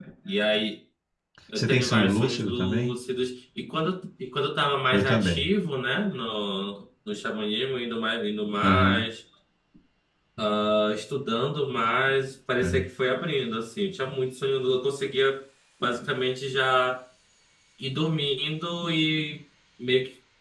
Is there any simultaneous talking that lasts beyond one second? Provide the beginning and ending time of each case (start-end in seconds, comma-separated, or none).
1.6-2.9